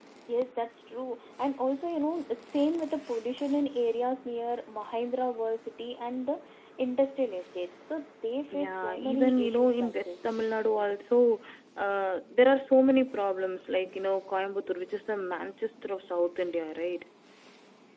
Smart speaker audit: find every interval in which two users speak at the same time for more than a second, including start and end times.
8.5-10.3

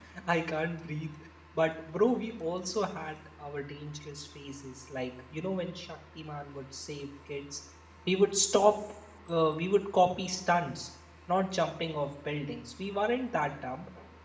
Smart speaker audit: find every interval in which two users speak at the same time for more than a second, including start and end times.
none

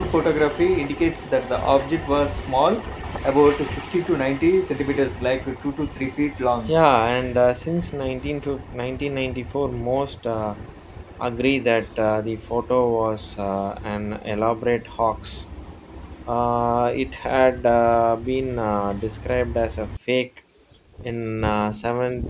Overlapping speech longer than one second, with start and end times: none

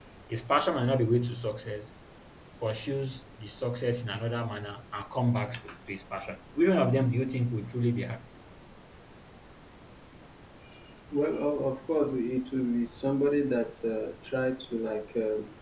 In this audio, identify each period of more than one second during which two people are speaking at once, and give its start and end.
none

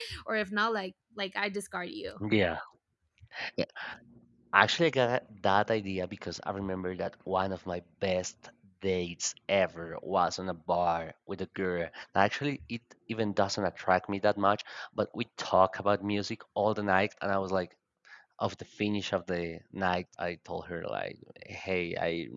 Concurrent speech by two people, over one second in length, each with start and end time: none

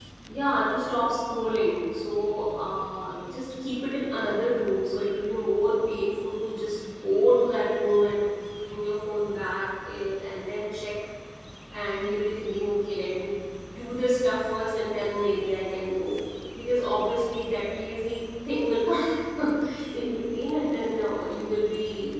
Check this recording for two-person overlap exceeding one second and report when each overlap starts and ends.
none

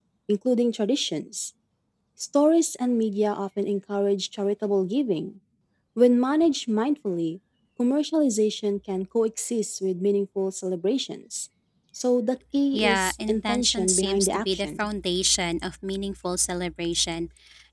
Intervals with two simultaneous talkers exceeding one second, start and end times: 12.7-14.9

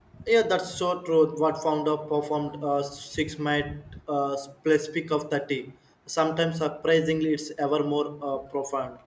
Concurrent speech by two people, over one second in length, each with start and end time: none

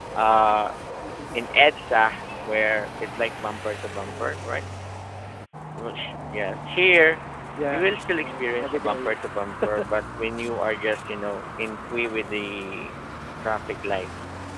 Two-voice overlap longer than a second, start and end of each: 7.7-9.2

